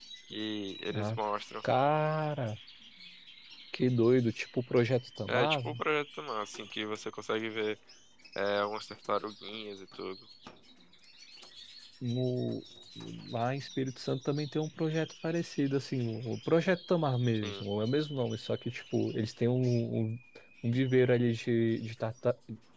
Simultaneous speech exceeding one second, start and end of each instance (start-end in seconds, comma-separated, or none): none